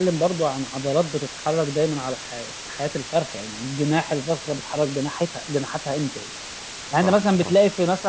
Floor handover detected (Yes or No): No